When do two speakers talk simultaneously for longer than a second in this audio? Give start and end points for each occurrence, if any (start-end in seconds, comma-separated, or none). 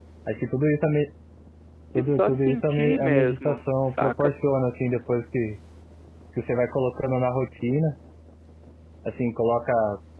2.0-4.3